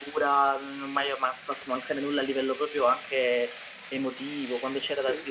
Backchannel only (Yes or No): Yes